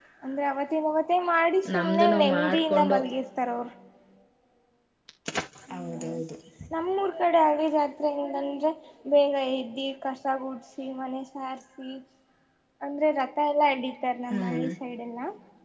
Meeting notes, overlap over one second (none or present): present